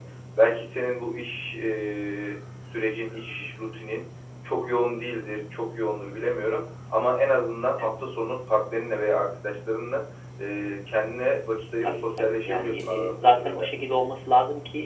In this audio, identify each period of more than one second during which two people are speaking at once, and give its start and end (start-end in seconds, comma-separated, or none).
11.8-13.7